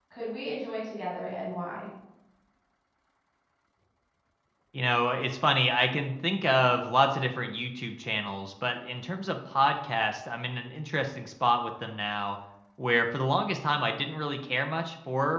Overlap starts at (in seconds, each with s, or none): none